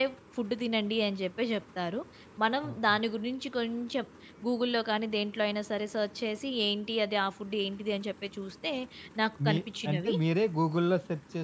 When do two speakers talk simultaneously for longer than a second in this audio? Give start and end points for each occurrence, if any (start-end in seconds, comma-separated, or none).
none